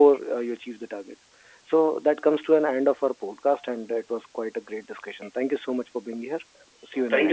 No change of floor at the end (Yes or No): No